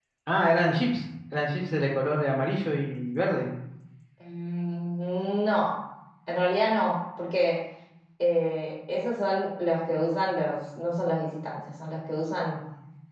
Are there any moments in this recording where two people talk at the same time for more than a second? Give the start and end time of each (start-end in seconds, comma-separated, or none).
none